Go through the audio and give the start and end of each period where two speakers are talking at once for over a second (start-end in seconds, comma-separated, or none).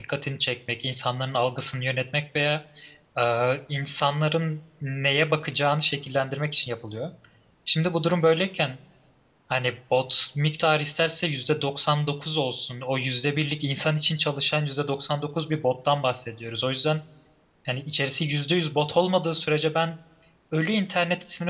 none